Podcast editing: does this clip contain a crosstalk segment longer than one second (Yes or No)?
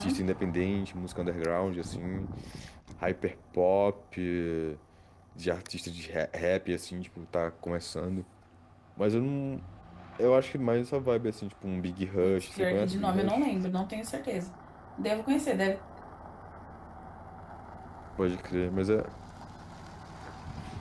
Yes